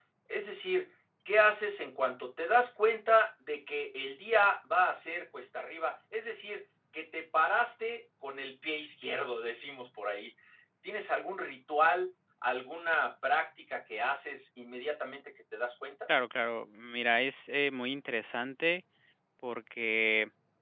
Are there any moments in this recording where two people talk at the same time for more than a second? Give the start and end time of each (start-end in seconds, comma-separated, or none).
none